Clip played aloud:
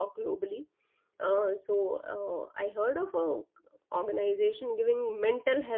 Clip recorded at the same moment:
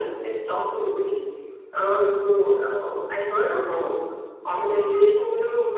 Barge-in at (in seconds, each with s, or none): none